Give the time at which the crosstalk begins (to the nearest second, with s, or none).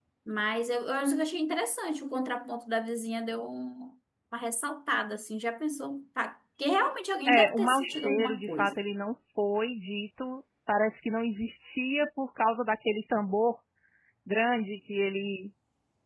7 s